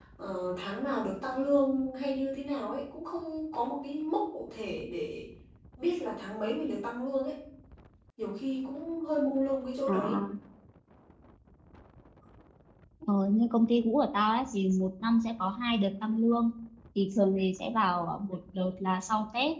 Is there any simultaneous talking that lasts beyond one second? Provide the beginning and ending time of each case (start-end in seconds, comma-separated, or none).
none